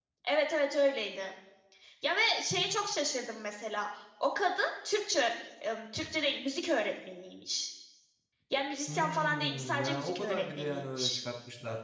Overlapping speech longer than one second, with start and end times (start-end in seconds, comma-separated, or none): 8.9-11.2